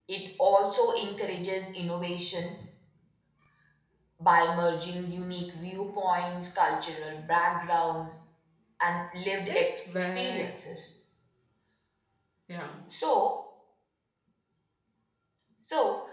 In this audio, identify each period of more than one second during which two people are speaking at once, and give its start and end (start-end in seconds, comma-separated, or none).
9.3-10.8